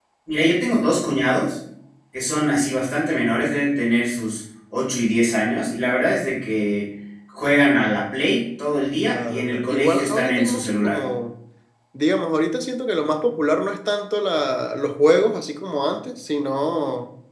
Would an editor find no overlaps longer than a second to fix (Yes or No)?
No